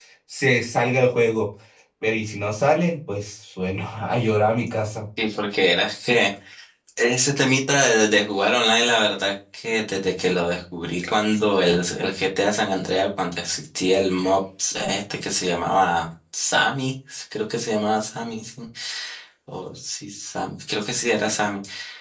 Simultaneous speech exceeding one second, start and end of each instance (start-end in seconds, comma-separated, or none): none